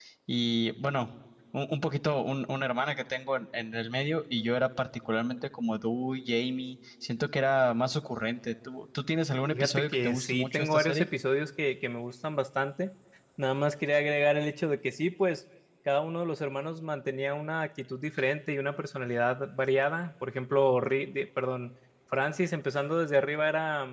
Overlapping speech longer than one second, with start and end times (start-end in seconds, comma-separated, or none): 9.5-11.1